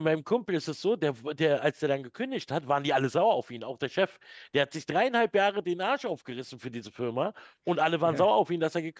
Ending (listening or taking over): listening